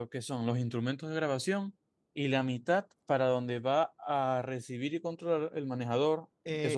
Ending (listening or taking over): taking over